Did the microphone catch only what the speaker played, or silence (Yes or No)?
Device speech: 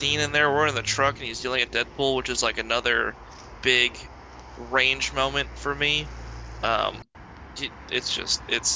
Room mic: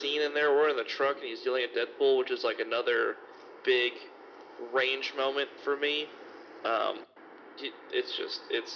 Yes